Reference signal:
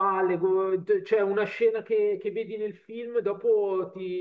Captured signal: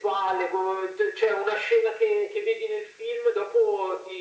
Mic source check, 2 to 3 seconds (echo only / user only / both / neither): echo only